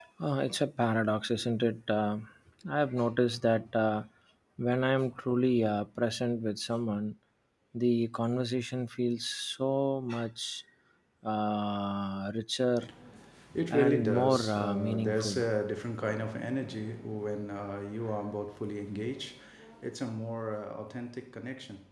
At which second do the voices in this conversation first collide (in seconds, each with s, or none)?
13.7 s